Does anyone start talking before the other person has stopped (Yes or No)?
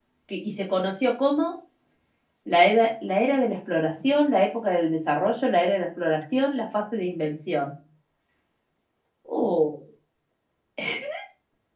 No